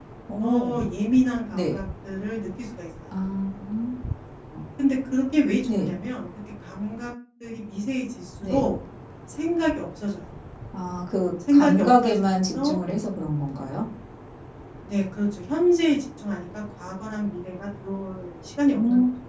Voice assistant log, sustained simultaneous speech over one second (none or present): present